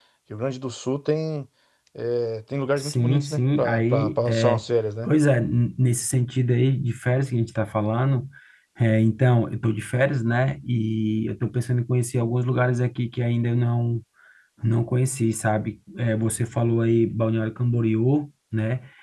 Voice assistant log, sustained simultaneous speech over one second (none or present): present